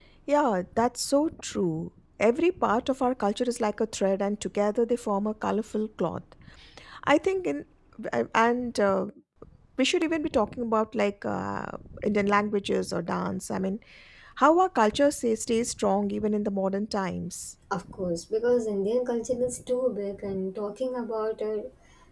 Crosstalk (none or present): none